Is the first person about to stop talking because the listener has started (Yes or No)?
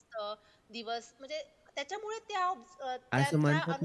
Yes